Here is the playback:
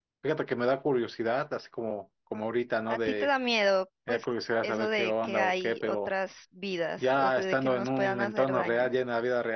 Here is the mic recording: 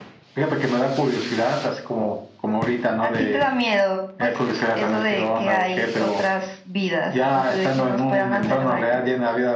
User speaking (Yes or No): No